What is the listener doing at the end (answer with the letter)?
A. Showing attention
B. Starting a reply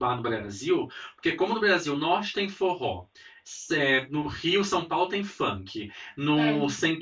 A